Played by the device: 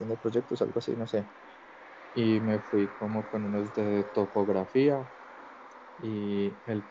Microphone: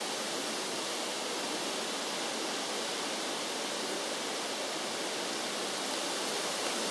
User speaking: No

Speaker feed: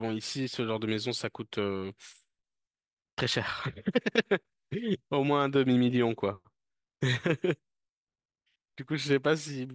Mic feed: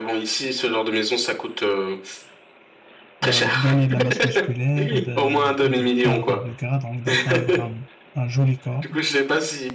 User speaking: Yes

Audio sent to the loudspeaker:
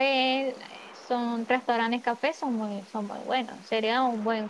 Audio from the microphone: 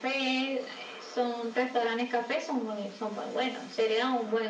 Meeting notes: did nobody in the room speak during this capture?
Yes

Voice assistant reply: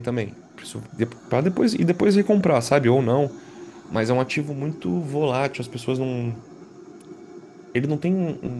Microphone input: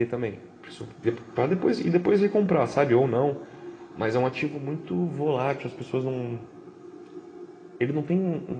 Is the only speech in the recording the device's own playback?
Yes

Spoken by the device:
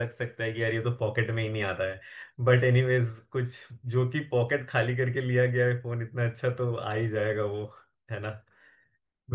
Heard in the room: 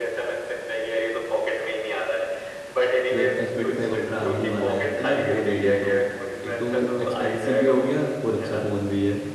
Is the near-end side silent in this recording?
No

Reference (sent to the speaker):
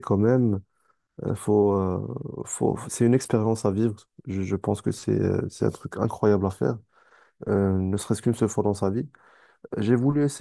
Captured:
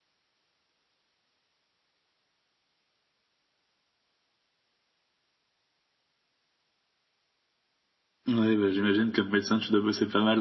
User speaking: Yes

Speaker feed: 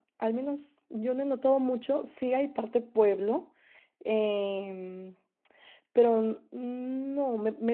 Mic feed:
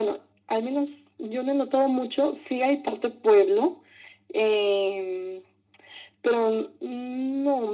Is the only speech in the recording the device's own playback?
Yes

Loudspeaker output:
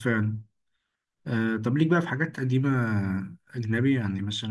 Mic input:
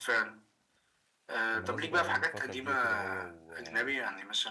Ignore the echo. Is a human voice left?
Yes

